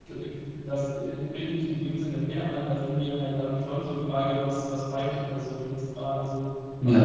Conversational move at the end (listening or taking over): listening